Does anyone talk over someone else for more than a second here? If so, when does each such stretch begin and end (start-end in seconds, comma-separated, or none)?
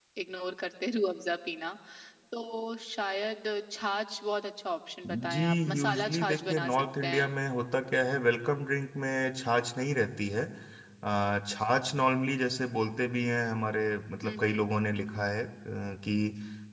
5.3-7.4